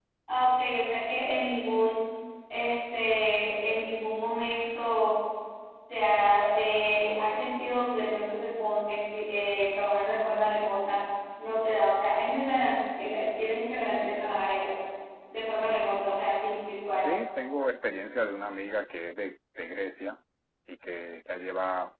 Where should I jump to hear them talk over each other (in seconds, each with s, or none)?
none